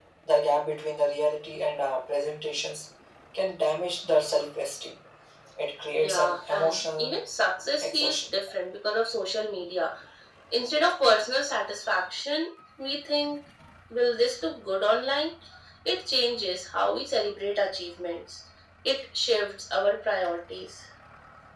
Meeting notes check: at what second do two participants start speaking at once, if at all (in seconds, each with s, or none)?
6.0 s